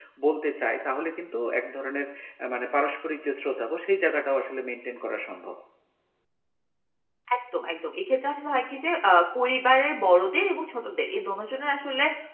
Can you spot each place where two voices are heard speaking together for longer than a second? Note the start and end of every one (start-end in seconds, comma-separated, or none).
none